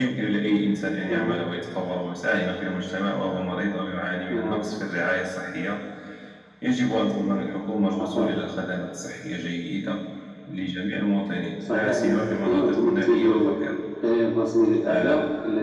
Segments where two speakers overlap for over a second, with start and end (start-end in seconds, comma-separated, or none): 11.7-13.6